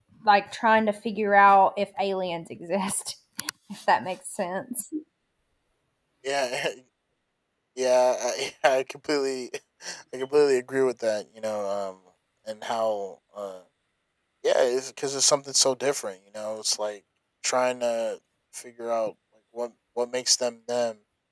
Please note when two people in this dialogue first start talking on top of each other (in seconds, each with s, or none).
none